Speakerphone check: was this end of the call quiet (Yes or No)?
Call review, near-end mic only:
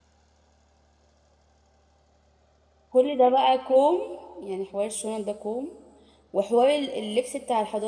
No